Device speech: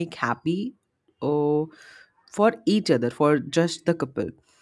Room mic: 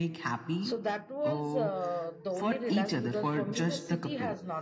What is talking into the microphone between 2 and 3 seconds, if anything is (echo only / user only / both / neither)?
both